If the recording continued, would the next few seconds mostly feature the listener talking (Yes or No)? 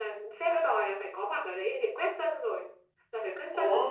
No